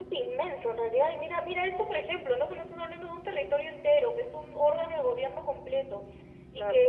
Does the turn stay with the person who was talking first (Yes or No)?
Yes